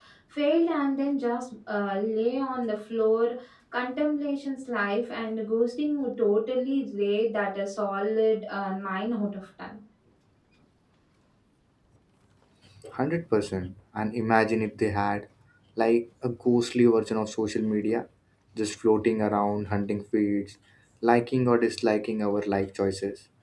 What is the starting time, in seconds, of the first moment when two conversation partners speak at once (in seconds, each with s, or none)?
none